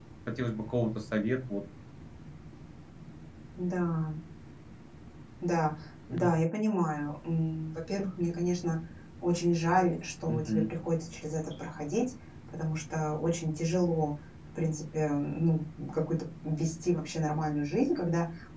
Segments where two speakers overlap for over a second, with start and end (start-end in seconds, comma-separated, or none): none